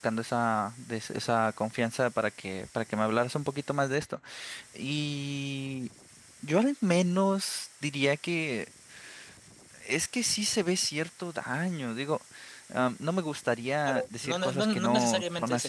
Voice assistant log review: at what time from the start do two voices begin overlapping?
14 s

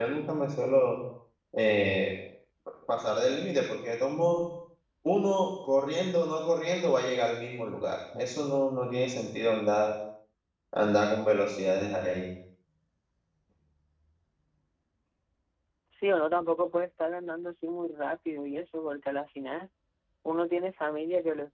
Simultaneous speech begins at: none

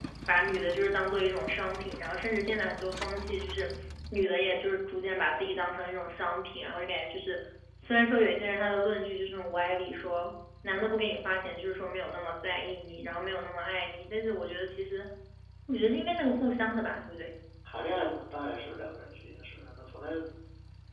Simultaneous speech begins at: none

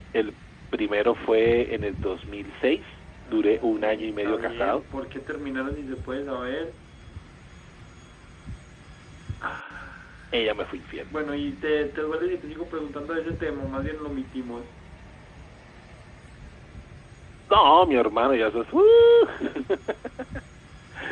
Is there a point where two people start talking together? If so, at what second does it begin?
3 s

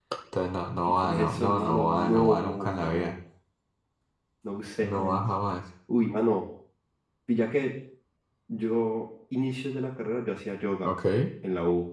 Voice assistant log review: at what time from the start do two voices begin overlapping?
1 s

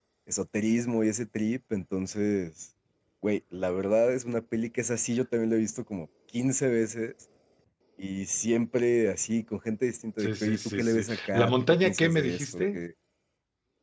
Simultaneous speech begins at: 10 s

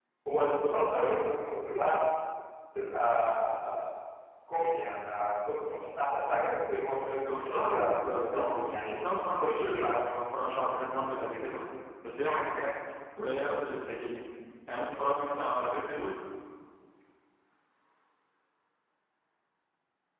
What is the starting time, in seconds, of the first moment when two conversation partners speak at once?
7 s

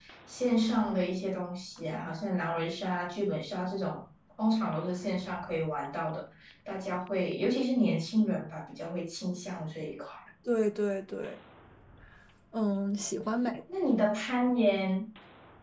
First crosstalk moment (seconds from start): none

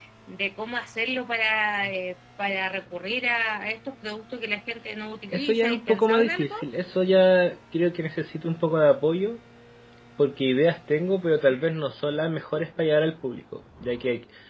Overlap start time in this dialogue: 5 s

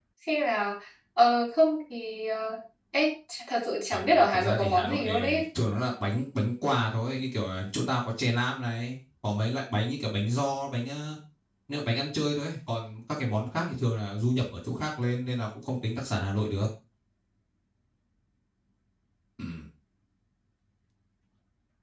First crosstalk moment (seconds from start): 4 s

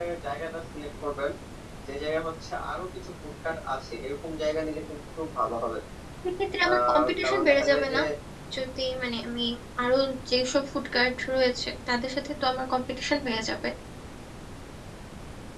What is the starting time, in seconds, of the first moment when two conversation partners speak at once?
7 s

